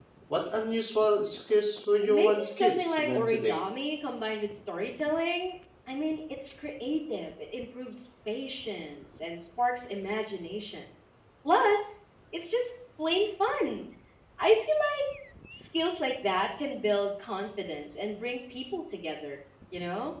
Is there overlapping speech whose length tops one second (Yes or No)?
Yes